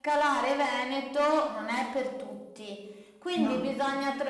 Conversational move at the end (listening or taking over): listening